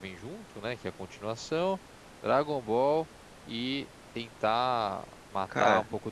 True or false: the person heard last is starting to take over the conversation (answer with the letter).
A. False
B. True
A